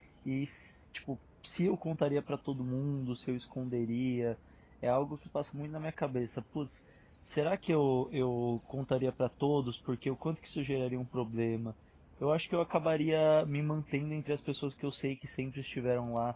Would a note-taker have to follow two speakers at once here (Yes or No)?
No